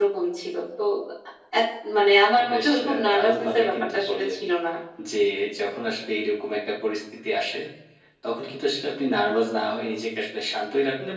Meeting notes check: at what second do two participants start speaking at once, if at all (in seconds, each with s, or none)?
2.4 s